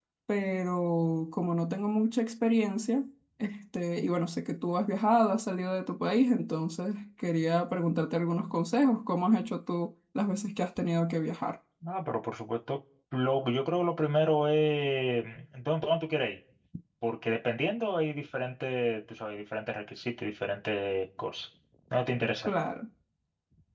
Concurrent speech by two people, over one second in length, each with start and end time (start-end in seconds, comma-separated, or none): none